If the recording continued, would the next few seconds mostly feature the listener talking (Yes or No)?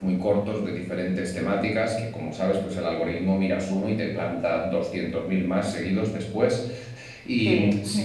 No